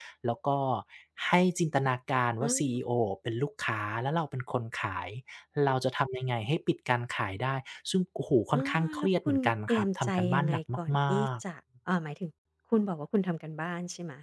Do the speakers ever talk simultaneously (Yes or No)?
Yes